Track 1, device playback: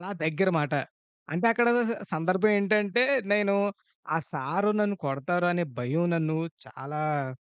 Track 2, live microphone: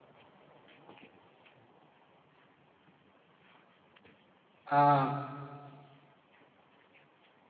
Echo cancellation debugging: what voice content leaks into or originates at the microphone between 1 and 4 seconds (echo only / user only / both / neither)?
neither